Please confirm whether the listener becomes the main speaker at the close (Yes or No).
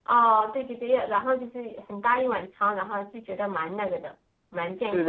Yes